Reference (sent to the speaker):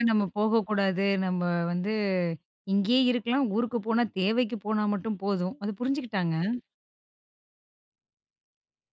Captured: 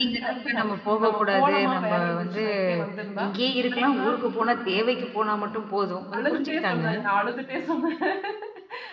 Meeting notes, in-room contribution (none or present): present